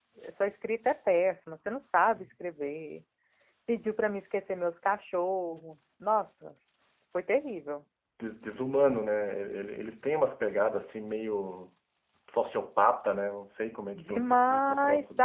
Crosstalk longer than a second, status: present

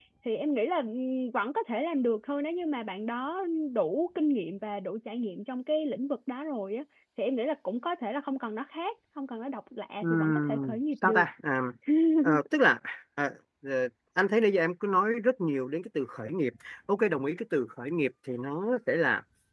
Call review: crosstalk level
present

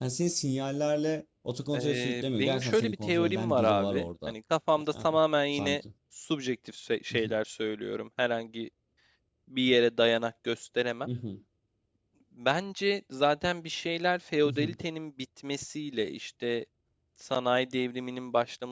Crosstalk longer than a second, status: present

